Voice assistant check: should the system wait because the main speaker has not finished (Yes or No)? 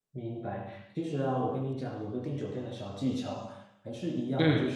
Yes